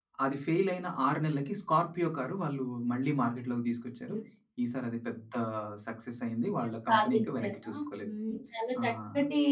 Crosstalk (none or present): present